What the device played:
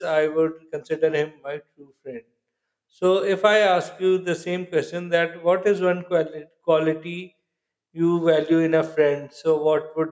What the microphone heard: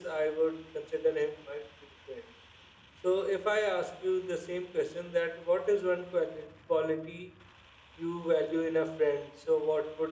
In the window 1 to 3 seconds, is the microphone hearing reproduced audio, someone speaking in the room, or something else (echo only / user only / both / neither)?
echo only